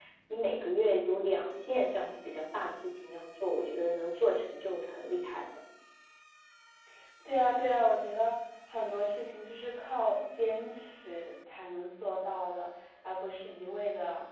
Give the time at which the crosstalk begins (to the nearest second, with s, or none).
none